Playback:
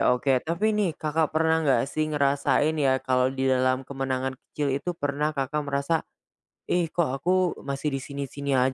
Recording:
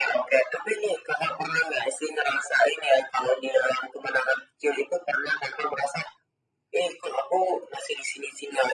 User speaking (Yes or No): No